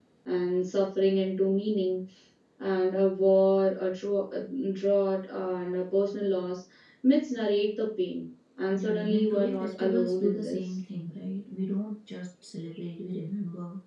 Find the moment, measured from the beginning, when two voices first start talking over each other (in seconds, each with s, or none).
8.7 s